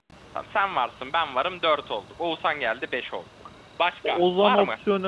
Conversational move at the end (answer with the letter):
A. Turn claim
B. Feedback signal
A